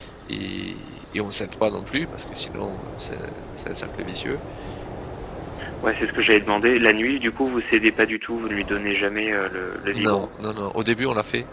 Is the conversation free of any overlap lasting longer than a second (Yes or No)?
Yes